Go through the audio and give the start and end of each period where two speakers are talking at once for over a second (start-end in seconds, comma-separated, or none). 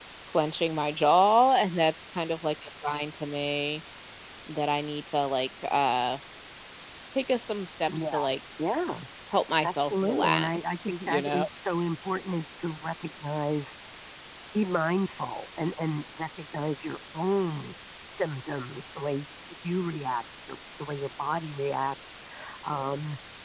9.6-11.4